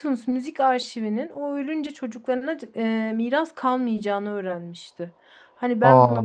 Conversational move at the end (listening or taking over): listening